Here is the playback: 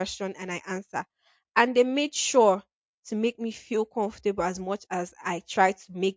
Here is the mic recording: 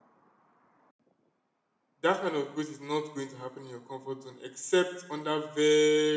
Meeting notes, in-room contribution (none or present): present